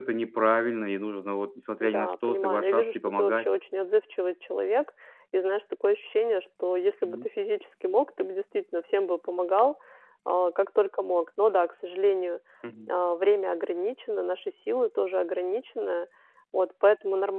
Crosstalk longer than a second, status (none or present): present